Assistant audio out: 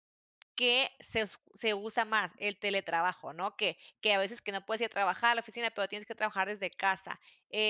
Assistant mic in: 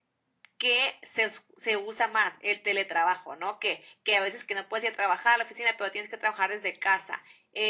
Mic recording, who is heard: echo only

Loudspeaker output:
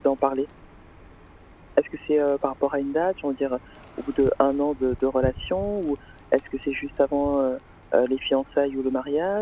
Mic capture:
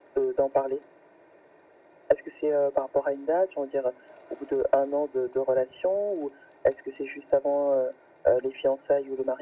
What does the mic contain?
echo only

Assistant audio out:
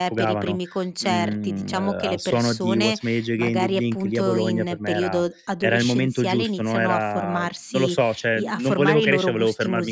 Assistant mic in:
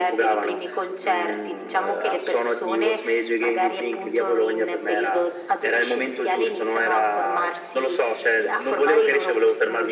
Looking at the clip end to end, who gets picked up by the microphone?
echo only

